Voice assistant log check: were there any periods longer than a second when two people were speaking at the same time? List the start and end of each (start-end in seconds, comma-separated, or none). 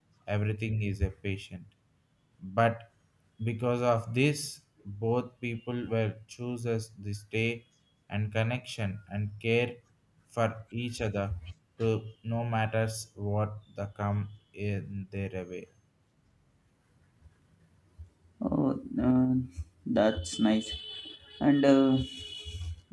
none